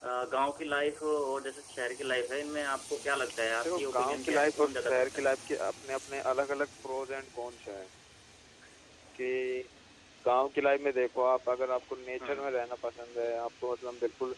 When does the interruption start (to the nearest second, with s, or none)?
4 s